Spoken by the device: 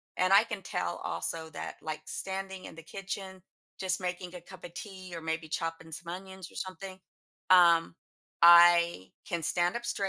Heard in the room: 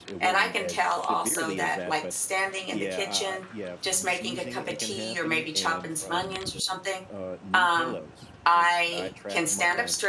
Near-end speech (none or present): present